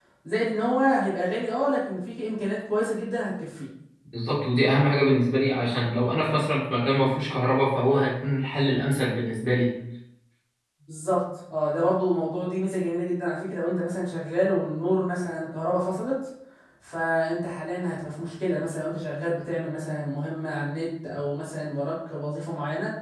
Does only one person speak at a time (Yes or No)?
Yes